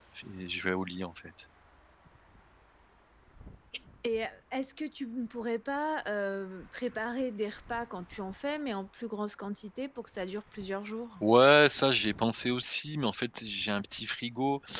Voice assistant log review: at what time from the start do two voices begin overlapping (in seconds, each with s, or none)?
none